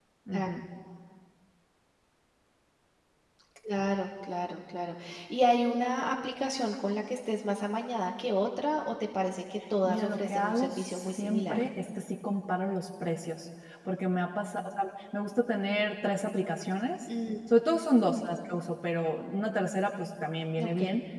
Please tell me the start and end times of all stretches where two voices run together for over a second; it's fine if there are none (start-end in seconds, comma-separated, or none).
9.8-11.6